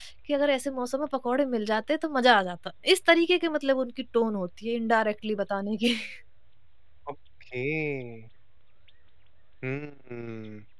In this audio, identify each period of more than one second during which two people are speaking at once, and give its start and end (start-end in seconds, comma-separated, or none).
none